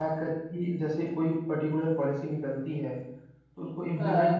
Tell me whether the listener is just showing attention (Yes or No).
Yes